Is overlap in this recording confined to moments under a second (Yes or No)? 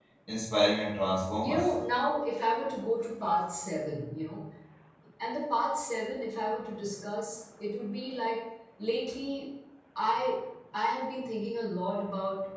Yes